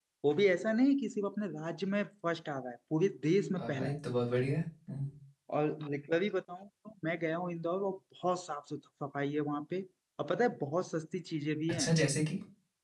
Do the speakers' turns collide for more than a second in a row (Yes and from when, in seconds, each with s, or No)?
No